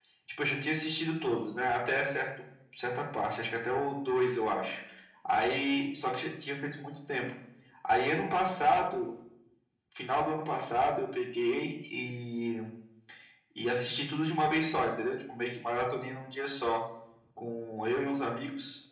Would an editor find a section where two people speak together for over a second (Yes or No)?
No